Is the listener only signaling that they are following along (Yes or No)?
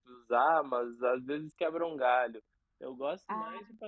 Yes